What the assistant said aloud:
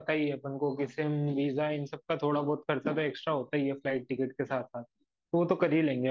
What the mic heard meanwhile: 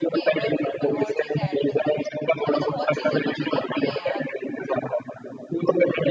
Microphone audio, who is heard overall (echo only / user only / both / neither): both